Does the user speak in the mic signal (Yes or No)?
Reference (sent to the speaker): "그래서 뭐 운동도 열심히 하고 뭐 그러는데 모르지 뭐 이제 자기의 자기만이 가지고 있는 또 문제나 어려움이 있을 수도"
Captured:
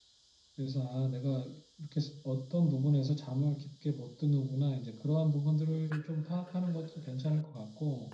Yes